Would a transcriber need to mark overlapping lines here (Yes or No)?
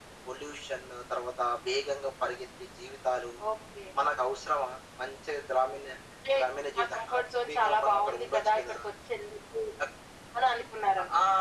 Yes